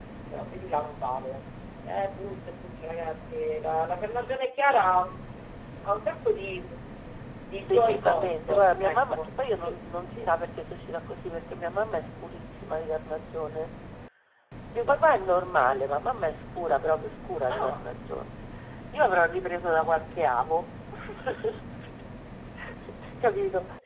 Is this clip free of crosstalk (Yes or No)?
No